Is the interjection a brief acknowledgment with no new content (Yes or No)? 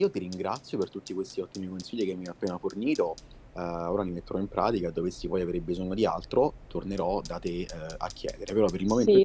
No